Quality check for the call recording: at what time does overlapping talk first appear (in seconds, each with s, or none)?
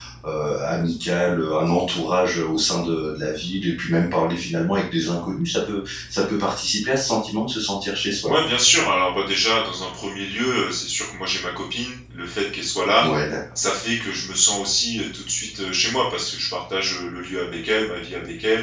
none